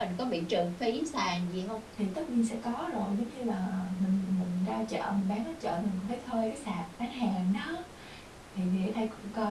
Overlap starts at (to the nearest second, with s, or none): none